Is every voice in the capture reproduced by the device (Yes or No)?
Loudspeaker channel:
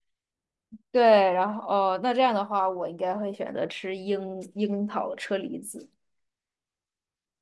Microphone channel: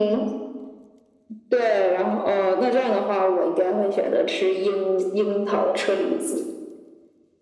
Yes